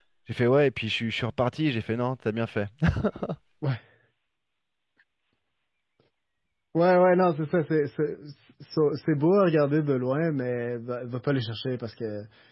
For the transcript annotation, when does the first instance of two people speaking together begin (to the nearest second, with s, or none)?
none